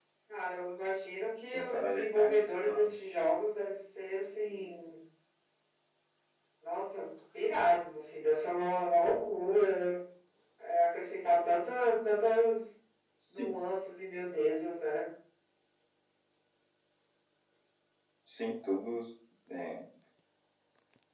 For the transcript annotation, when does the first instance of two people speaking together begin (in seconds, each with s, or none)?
1.5 s